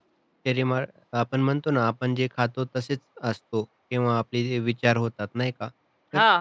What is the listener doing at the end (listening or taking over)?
listening